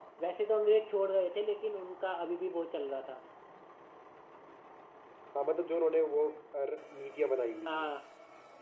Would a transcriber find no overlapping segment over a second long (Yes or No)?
Yes